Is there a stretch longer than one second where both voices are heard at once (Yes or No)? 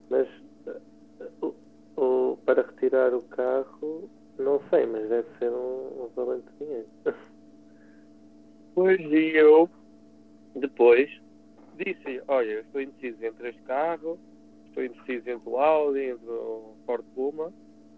No